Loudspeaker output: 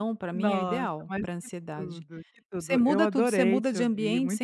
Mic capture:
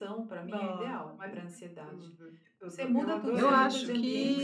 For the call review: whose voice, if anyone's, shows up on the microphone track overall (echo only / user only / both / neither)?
both